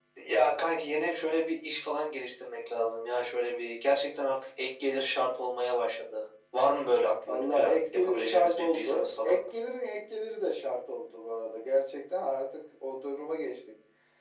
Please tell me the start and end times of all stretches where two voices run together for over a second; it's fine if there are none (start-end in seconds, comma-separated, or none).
7.3-9.4